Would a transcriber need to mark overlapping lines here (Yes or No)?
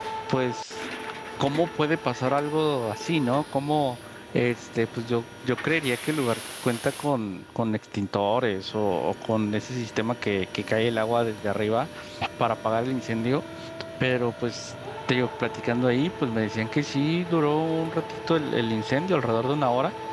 No